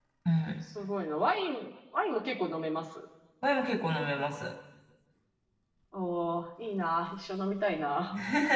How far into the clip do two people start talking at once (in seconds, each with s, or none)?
none